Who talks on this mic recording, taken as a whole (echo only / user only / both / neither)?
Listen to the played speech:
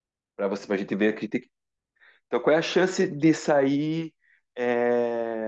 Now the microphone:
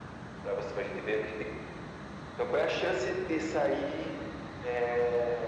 echo only